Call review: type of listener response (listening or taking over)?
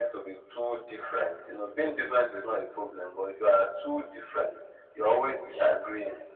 listening